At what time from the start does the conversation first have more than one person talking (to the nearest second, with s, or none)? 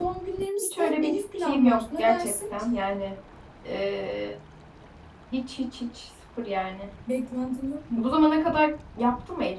1 s